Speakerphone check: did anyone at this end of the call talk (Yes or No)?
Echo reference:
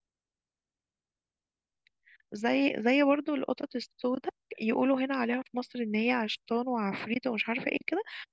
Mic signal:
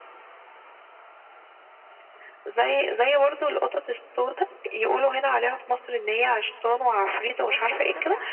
Yes